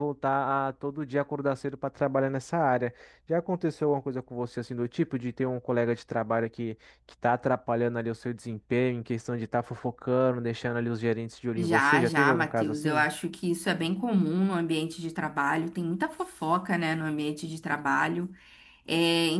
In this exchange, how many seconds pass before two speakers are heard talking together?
11.6 s

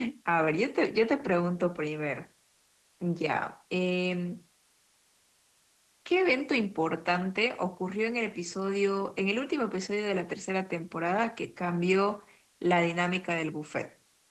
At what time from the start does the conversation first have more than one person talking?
none

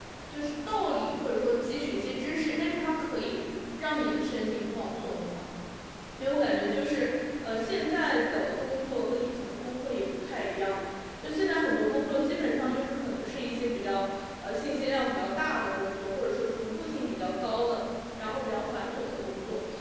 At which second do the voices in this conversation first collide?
none

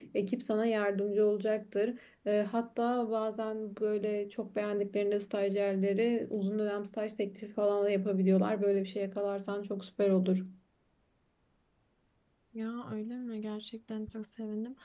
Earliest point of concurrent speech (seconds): none

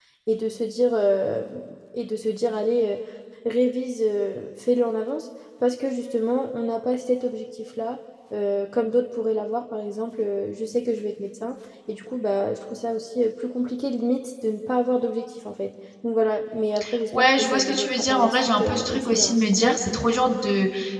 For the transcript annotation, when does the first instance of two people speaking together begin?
17.2 s

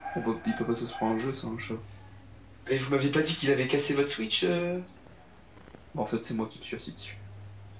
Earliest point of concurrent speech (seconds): none

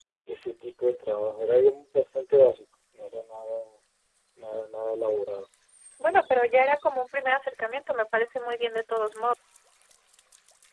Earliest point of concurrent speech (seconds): none

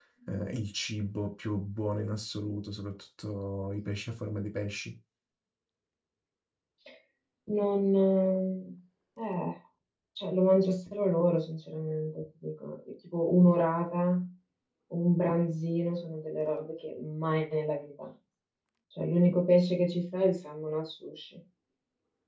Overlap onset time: none

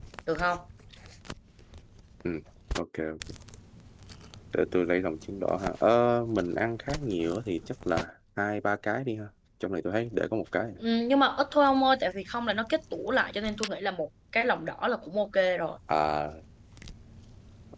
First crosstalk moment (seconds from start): none

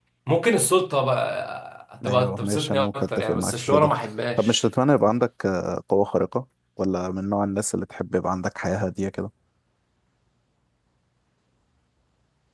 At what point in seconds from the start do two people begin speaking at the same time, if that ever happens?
2.0 s

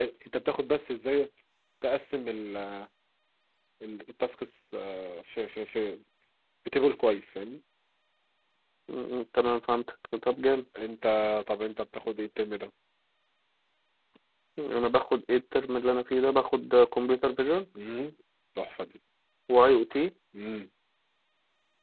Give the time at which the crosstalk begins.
none

